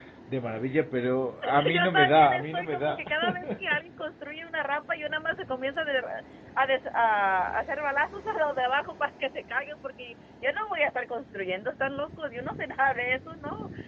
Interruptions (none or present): present